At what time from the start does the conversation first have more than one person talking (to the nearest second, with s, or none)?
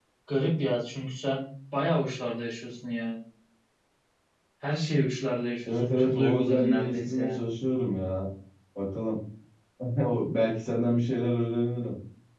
6 s